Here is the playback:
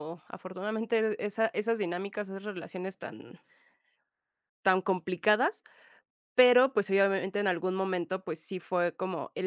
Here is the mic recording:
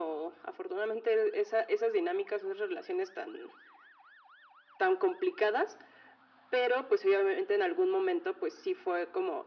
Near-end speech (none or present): none